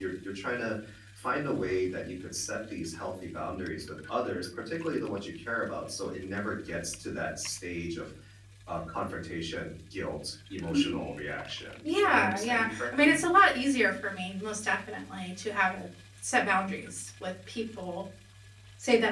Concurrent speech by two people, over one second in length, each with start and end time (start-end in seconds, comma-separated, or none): 11.8-13.1